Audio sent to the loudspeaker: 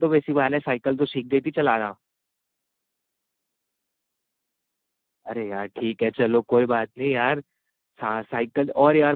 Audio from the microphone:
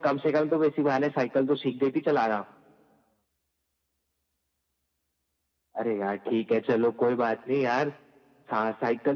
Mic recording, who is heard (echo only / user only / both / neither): echo only